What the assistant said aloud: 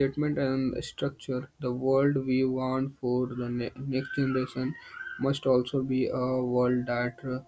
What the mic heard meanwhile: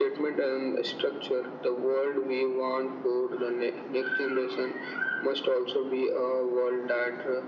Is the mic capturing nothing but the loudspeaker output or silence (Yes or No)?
Yes